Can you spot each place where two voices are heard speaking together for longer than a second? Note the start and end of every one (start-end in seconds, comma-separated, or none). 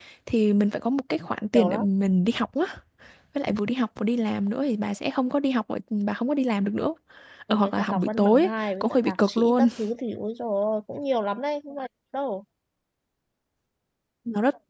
7.5-9.7